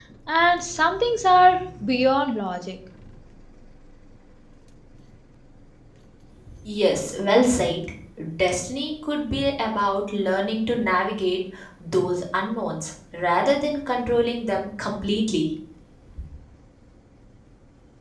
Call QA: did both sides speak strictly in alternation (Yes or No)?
Yes